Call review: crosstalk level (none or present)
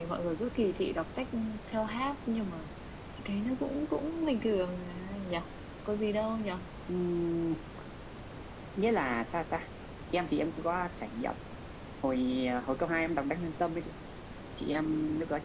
none